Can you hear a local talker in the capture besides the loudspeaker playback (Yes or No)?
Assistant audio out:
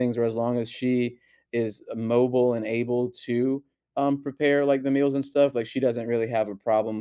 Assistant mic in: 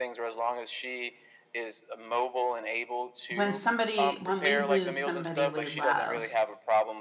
Yes